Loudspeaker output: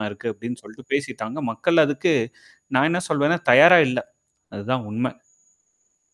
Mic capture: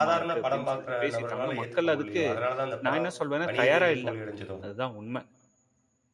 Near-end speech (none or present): present